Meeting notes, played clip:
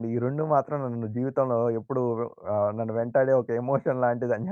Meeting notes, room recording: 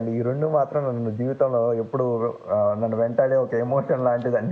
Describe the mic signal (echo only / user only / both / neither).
echo only